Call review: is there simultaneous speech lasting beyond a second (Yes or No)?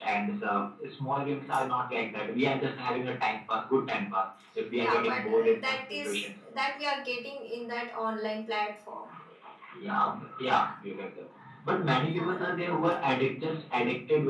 Yes